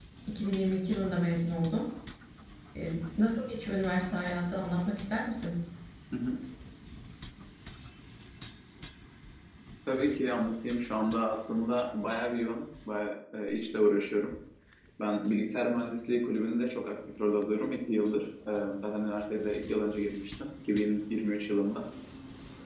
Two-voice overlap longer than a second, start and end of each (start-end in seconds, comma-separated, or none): none